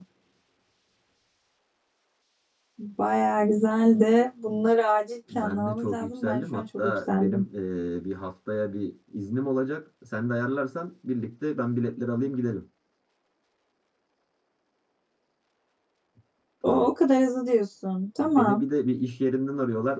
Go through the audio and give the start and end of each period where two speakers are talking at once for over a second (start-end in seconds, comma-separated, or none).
5.3-7.4